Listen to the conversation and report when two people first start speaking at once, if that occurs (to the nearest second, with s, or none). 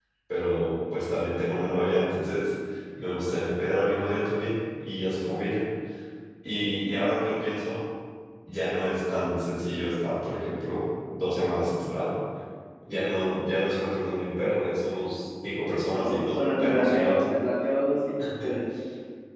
16 s